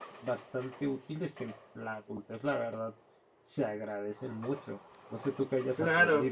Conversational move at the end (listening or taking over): taking over